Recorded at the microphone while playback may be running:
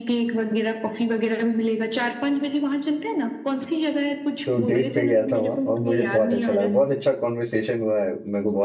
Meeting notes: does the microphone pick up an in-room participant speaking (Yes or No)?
Yes